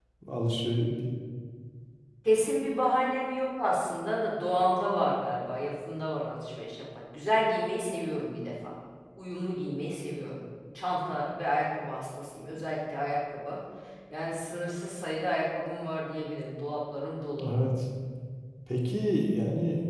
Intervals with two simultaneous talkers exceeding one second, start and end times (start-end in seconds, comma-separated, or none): none